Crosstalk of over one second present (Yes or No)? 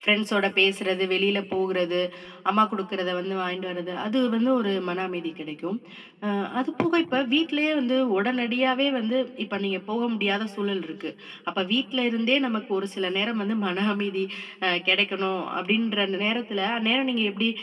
No